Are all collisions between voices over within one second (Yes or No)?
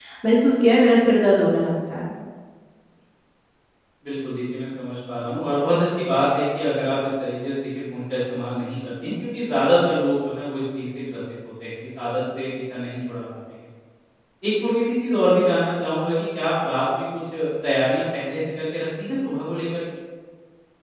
Yes